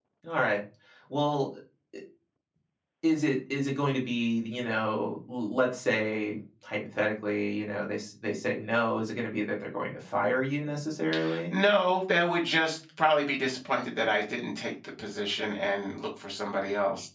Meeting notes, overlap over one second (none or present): none